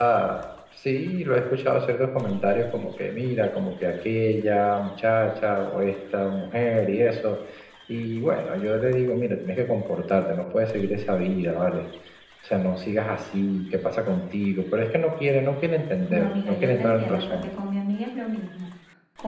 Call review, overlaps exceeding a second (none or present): present